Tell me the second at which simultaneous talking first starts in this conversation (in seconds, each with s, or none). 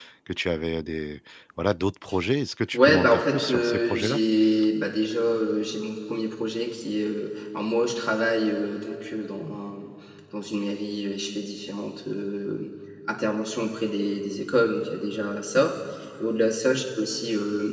2.7 s